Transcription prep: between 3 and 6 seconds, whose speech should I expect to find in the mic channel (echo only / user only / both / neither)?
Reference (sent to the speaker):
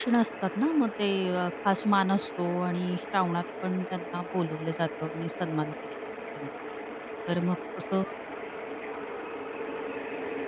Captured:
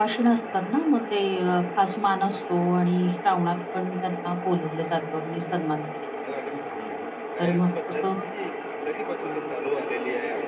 echo only